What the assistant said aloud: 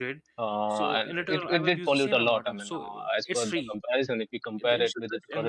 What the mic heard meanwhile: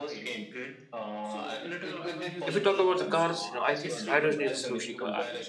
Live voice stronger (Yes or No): Yes